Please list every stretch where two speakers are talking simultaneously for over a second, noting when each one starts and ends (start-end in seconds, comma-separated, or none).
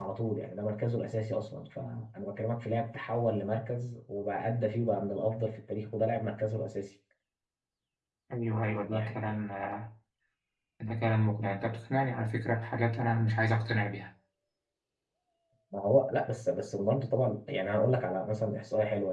none